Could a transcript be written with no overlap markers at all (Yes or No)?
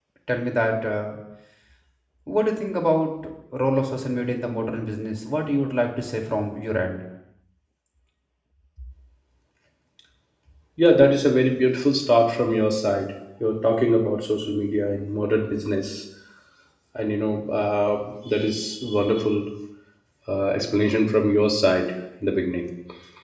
Yes